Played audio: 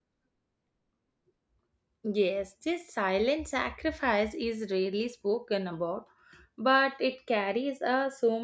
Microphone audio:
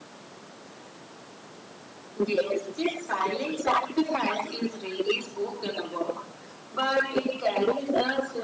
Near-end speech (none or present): none